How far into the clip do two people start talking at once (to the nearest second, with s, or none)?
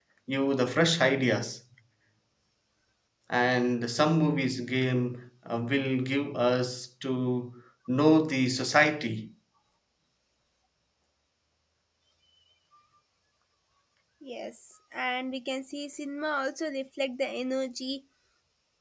none